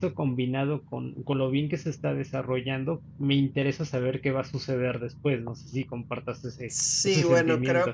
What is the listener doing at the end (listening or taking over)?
taking over